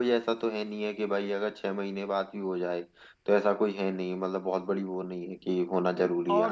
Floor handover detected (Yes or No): Yes